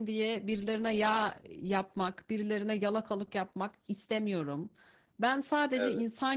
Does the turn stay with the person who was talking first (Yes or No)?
Yes